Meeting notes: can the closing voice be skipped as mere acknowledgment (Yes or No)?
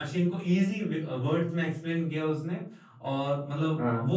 Yes